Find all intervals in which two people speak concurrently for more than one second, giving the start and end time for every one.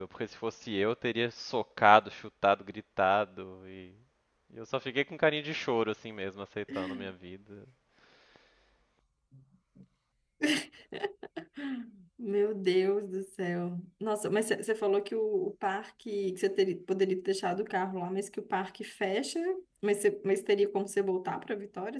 none

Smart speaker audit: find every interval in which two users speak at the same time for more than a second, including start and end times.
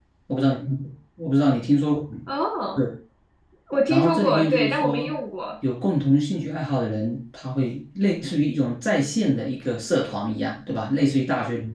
3.9-5.1

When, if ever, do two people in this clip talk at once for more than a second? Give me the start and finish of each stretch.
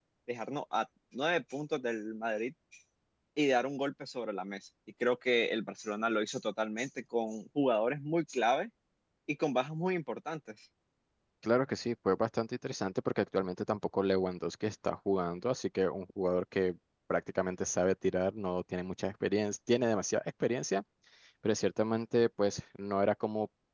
none

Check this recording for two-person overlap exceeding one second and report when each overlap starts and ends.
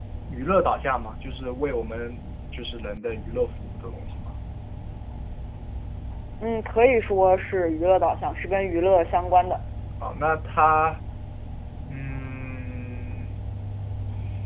none

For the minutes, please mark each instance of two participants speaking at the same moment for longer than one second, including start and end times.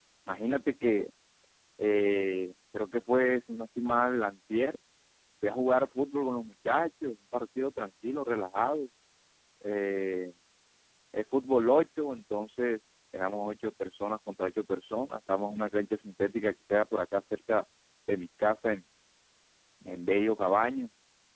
none

